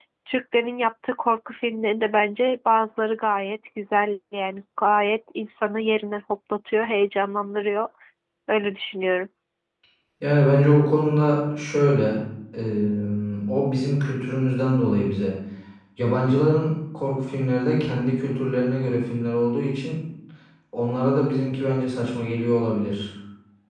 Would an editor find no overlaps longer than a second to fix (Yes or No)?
Yes